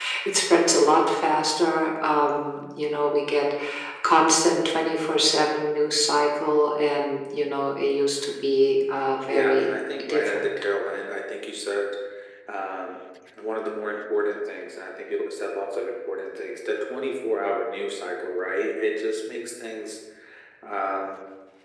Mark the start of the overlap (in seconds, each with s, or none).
9.3 s